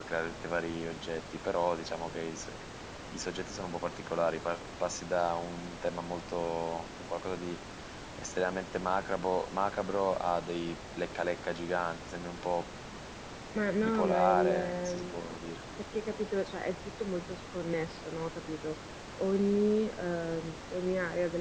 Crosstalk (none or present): present